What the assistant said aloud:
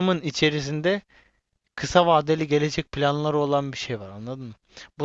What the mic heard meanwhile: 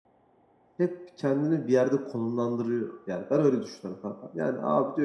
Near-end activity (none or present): present